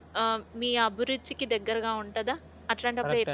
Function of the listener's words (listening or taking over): taking over